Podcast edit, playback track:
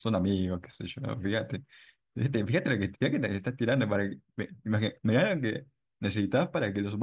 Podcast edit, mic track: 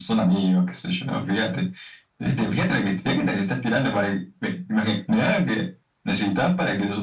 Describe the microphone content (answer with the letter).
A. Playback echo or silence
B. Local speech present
A